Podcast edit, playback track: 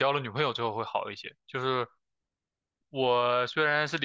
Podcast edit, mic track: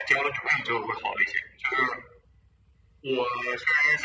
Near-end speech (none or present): none